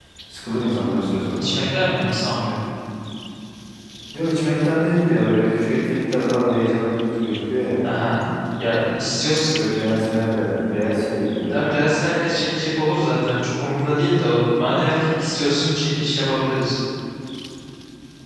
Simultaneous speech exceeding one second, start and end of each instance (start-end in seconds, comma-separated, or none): none